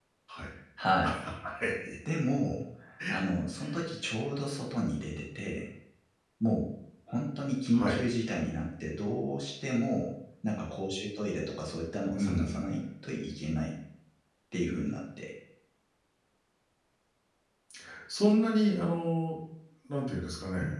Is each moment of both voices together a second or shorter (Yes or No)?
Yes